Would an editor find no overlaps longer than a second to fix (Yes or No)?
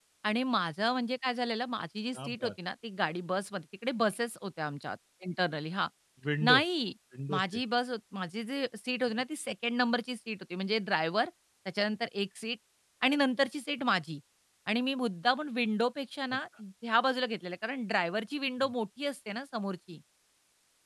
Yes